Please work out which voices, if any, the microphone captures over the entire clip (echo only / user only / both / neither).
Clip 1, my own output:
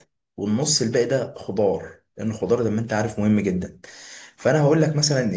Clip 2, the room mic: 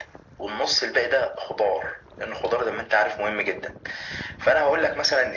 echo only